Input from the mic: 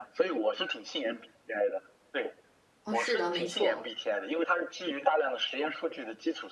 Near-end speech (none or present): present